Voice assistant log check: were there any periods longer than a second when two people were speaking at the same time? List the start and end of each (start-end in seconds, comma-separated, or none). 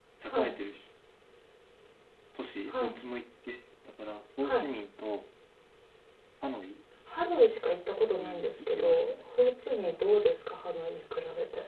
8.2-9.4